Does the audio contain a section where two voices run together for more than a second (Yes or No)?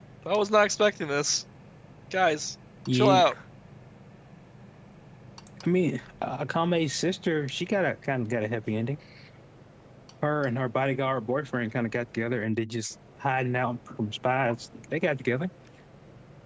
No